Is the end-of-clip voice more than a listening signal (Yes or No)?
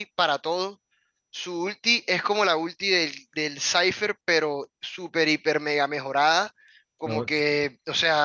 No